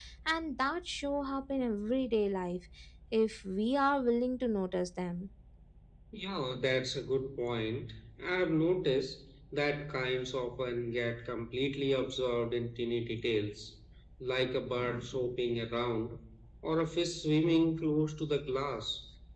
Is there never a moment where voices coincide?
Yes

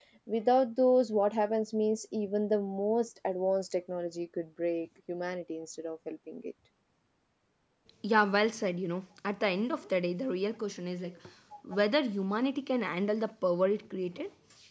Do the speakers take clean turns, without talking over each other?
Yes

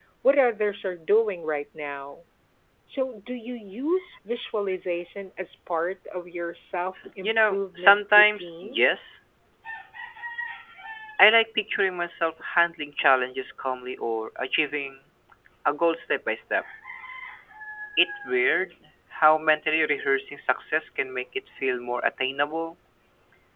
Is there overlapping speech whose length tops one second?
Yes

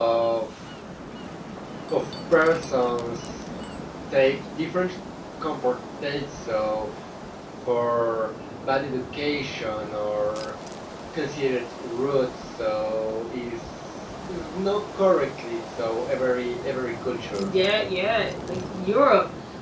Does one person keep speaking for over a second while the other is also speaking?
No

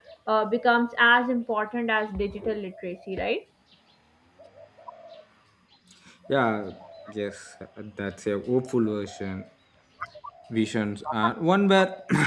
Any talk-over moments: No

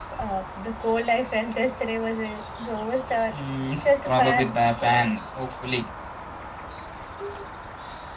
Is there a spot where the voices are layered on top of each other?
Yes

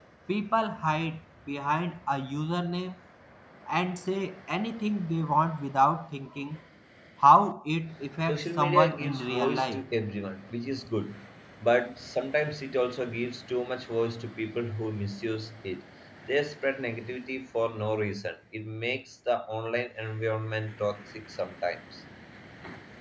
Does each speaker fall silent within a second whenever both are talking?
No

